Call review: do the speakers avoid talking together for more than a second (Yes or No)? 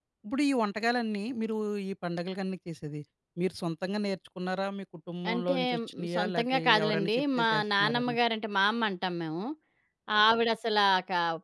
No